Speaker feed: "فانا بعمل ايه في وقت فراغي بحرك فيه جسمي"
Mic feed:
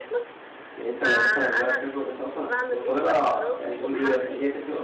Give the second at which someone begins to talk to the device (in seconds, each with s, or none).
0.8 s